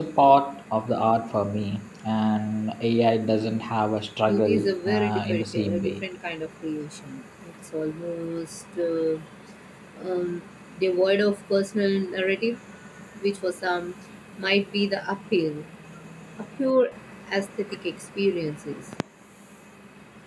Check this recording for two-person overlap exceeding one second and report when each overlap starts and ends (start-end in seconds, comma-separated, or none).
4.3-6.0